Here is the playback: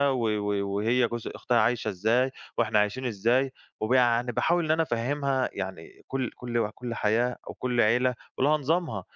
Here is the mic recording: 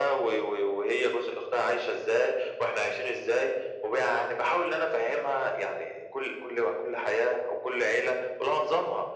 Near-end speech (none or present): none